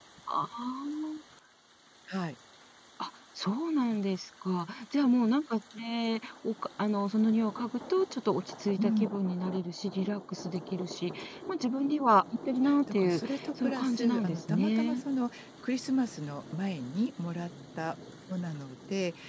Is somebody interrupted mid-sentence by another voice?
Yes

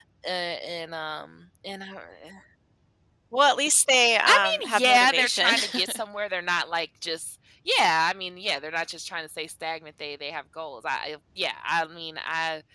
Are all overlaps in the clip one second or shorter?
No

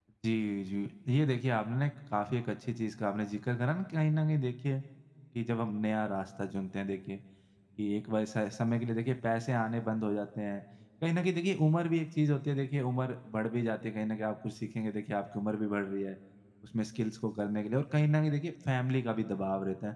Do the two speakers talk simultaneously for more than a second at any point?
No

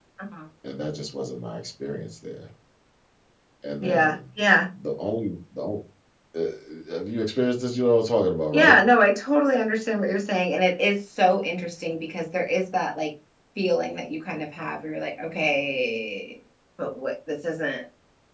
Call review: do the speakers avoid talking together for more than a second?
Yes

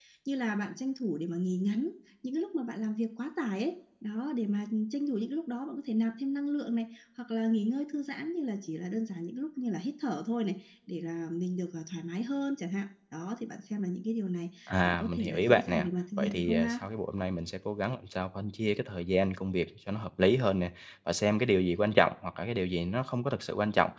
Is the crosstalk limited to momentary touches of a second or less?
No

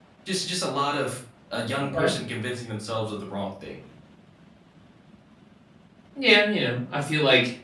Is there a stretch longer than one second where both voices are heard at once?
No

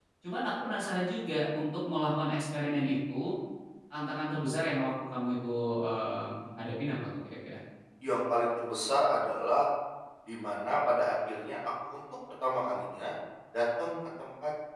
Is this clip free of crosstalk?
Yes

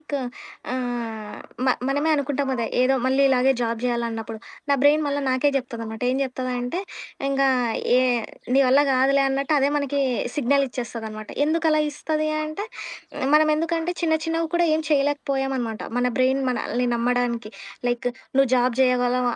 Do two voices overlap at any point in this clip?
No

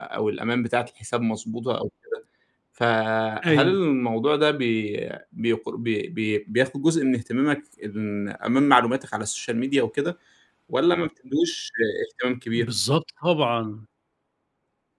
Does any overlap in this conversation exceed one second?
No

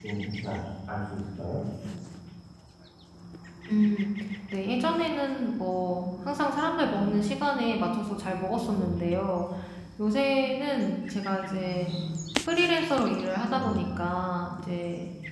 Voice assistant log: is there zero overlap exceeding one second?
Yes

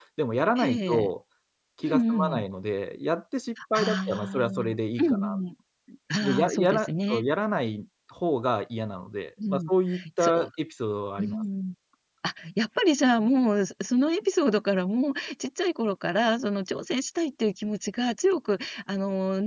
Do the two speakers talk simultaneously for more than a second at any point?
Yes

